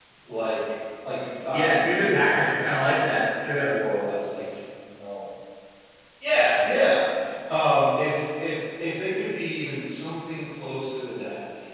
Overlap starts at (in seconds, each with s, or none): 1.5 s